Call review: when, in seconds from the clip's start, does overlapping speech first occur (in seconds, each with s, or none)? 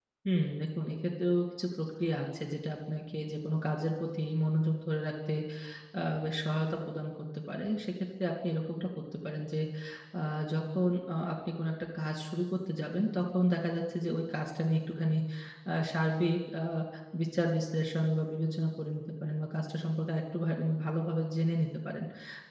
none